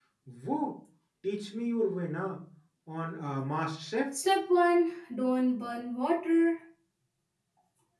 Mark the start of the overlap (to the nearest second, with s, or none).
none